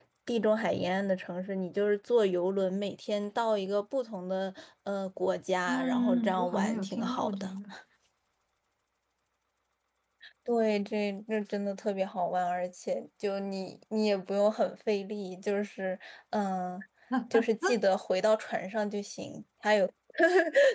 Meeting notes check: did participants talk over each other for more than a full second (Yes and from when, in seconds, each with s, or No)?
Yes, from 5.7 s